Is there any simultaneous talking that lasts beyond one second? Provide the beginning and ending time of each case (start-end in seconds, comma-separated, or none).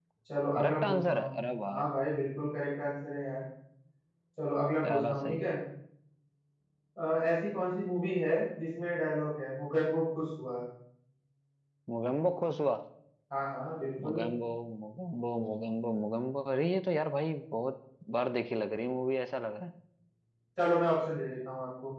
0.6-1.9